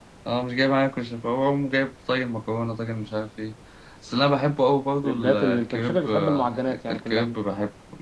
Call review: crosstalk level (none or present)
present